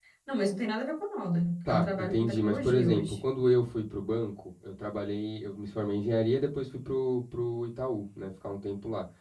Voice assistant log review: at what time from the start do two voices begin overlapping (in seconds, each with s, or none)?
1.6 s